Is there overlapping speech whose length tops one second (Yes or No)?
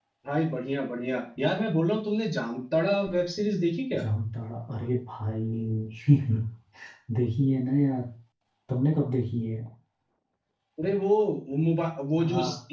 No